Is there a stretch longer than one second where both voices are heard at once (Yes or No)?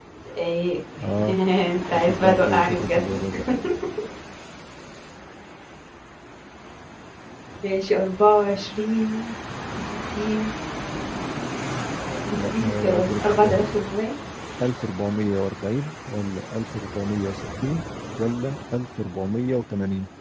Yes